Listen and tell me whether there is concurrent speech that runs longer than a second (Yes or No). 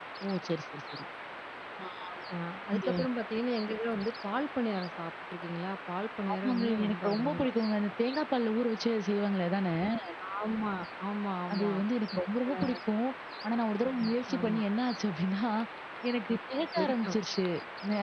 Yes